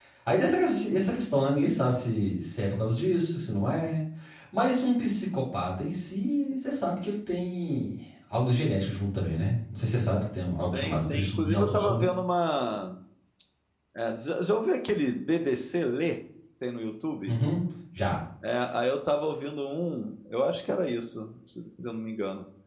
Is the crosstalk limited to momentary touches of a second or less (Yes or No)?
No